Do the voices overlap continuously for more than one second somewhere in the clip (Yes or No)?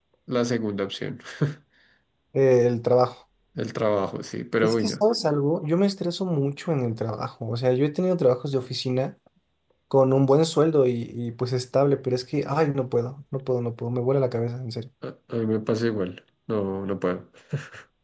No